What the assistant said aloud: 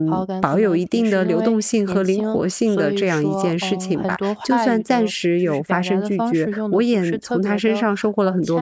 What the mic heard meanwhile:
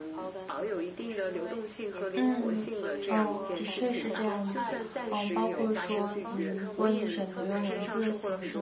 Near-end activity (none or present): present